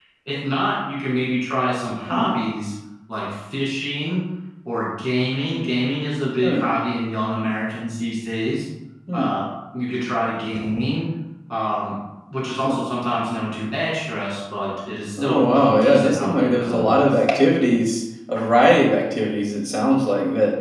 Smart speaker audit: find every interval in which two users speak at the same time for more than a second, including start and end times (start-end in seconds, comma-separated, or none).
15.2-17.0